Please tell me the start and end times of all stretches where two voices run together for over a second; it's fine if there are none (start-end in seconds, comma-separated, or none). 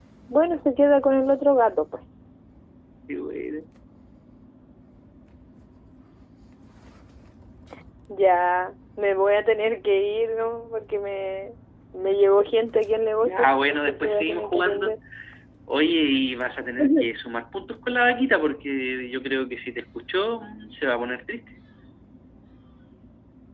13.2-14.9